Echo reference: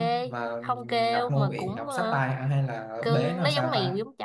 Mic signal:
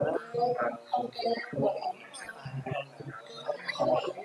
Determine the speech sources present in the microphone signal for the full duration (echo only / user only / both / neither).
echo only